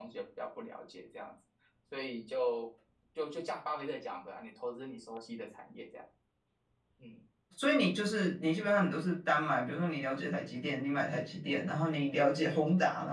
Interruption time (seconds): none

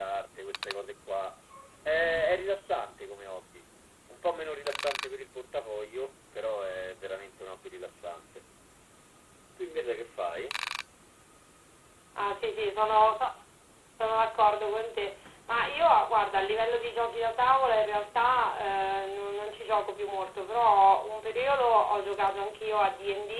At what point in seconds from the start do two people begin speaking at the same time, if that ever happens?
none

